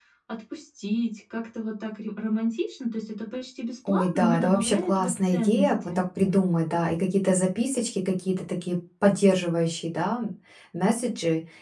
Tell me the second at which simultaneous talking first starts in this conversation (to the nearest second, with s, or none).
4 s